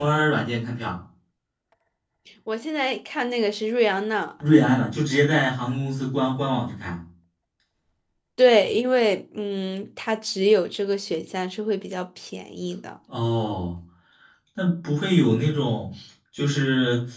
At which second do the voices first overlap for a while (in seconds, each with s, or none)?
none